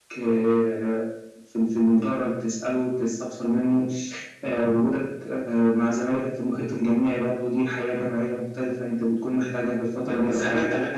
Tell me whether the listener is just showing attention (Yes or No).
No